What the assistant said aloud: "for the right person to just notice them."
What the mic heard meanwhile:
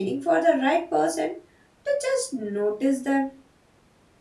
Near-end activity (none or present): none